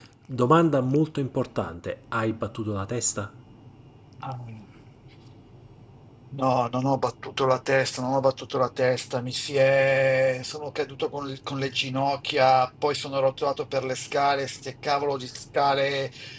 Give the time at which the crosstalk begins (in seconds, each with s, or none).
none